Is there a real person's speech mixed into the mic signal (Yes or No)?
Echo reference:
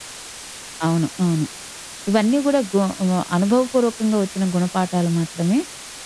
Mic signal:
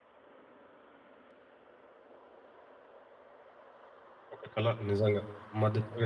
Yes